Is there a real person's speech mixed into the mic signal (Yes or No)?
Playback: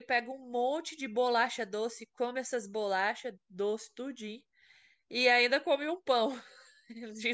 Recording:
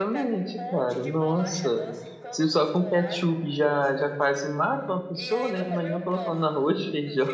Yes